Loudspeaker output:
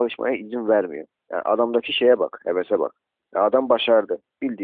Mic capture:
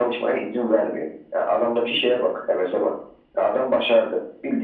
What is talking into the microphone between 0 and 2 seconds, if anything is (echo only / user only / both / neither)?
echo only